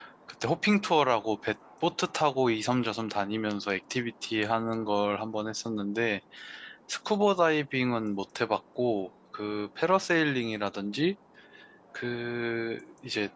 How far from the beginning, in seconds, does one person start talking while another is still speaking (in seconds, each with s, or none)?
none